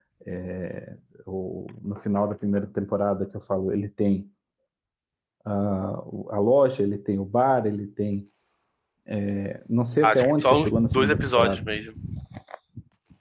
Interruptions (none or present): present